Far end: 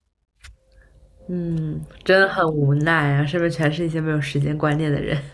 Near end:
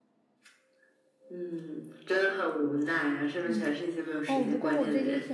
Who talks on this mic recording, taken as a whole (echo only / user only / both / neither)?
both